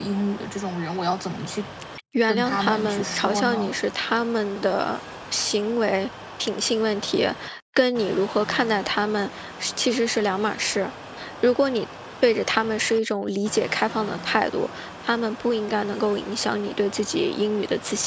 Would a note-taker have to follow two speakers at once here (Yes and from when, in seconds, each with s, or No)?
Yes, from 2.3 s